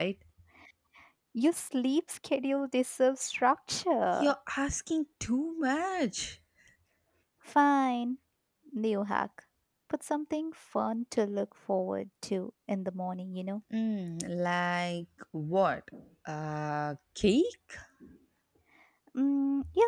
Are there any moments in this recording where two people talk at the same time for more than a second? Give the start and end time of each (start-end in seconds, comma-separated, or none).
none